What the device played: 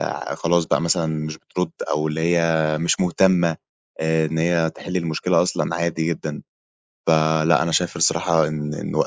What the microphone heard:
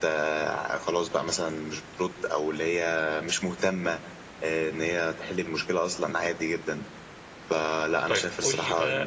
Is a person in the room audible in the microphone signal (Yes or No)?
Yes